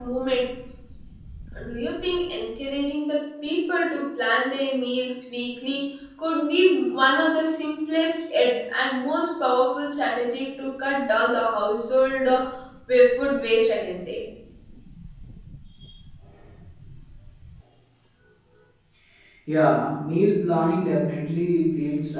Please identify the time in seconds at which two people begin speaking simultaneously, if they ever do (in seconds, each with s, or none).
none